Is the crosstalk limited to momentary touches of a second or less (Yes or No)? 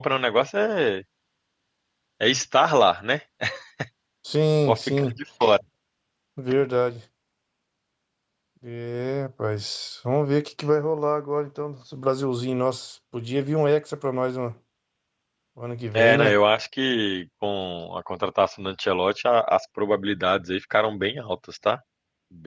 Yes